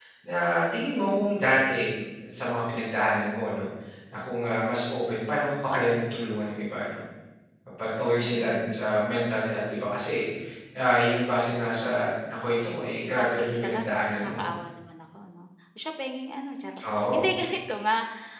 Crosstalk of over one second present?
Yes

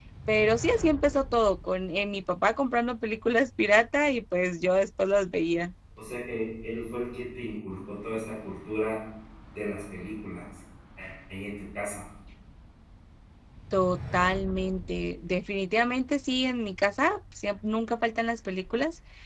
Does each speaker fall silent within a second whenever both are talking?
Yes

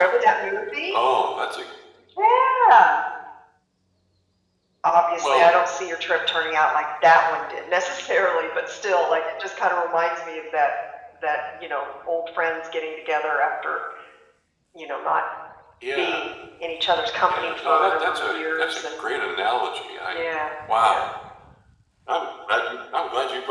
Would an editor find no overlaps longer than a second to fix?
No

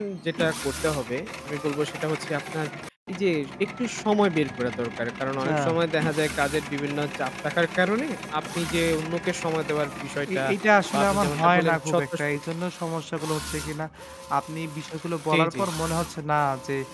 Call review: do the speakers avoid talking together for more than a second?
No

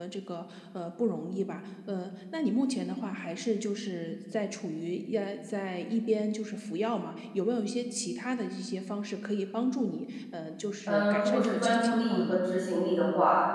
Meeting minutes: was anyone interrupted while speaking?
Yes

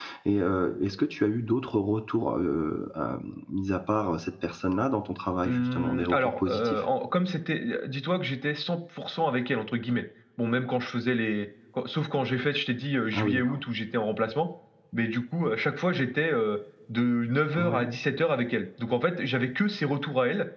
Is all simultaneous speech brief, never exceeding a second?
No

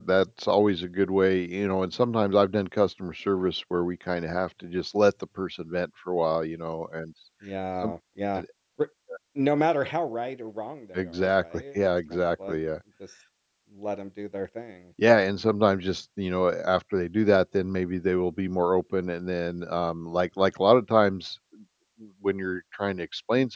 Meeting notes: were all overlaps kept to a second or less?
No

